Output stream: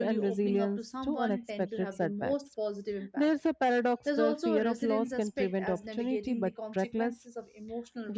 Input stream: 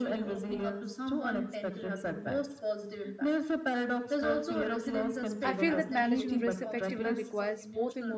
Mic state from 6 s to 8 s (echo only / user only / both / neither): both